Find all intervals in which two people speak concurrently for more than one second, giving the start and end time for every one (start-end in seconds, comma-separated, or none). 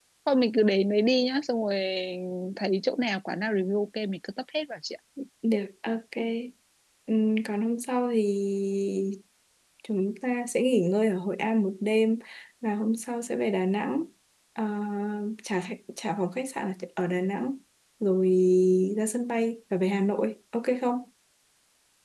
none